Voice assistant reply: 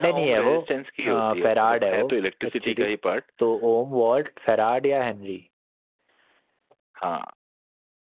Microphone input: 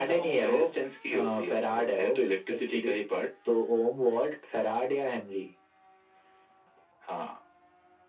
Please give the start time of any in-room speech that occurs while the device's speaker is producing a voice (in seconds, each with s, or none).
none